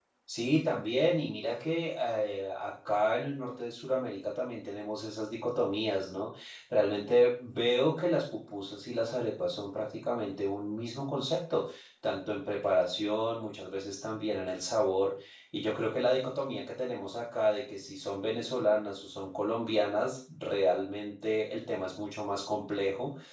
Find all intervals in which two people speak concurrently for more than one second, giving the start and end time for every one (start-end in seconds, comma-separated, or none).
none